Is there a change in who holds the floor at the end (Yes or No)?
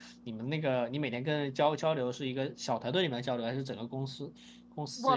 Yes